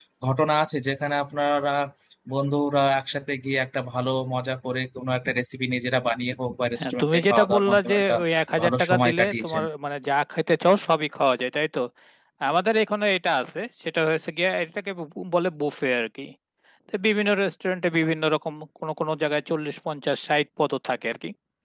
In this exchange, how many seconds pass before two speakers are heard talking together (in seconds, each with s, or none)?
6.8 s